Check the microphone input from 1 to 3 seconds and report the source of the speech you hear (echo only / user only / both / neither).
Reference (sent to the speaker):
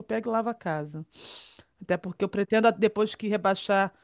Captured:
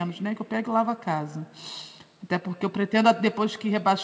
echo only